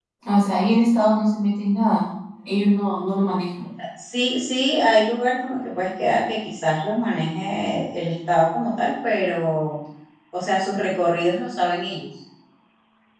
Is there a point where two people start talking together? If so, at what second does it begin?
none

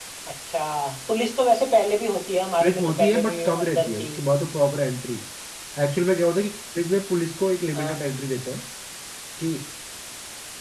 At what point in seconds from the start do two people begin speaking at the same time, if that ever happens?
2.6 s

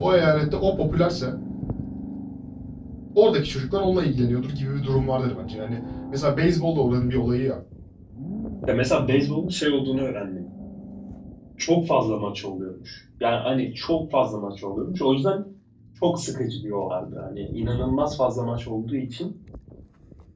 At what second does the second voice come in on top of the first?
none

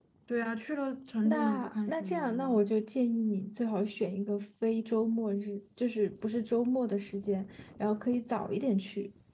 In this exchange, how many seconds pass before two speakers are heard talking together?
1.2 s

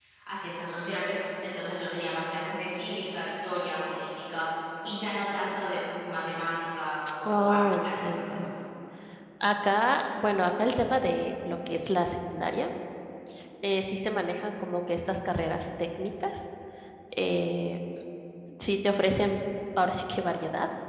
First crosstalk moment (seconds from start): 7.2 s

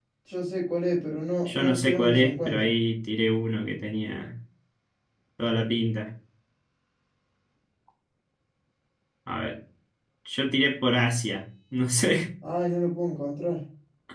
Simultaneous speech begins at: 1.5 s

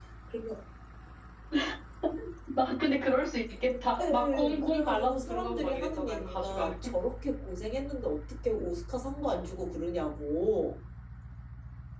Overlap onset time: 4.0 s

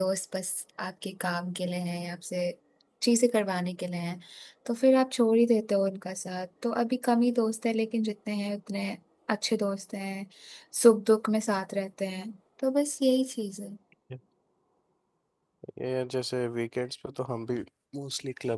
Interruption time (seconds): none

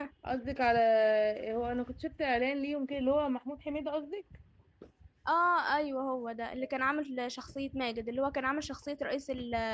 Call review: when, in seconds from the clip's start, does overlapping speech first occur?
none

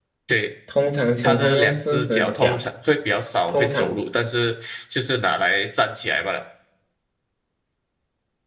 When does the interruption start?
1.2 s

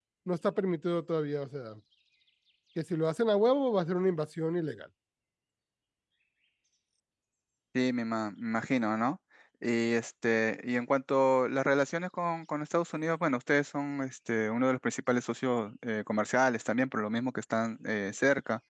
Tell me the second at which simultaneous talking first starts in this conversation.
none

